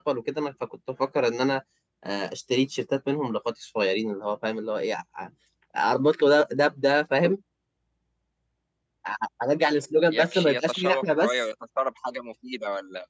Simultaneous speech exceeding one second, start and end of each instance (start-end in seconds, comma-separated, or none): 10.1-11.4